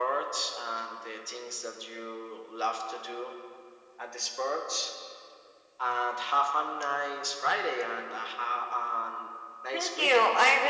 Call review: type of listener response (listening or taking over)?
taking over